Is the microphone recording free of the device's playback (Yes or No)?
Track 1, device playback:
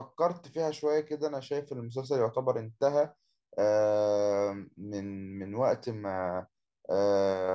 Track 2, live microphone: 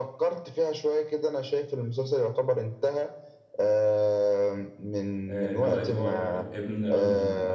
No